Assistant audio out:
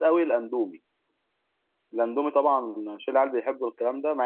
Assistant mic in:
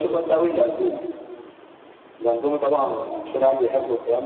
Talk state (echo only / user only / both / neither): echo only